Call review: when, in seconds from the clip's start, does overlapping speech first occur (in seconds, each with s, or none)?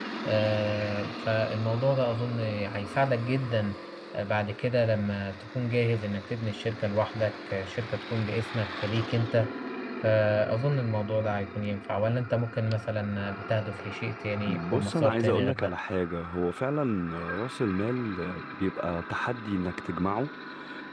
14.5 s